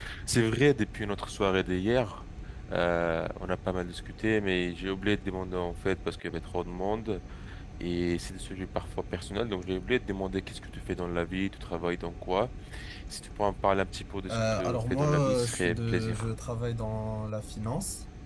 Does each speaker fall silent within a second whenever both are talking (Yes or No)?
No